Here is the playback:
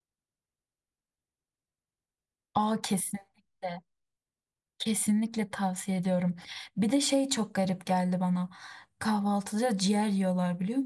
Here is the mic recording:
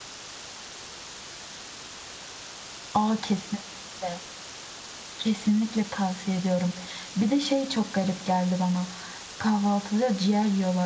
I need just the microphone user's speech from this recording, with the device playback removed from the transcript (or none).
none